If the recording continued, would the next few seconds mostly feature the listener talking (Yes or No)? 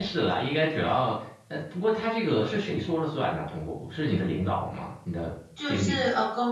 Yes